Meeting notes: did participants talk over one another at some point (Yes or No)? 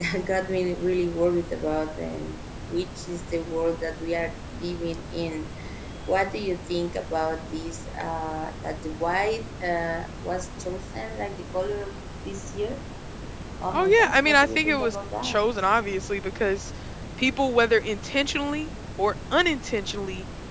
Yes